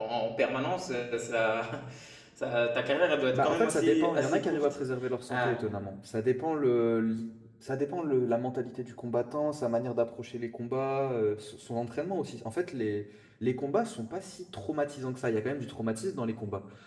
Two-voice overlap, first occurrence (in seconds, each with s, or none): 3.3 s